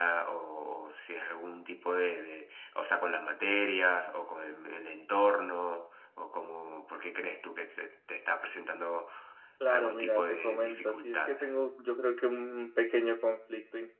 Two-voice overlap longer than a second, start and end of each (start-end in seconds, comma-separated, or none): 9.7-11.3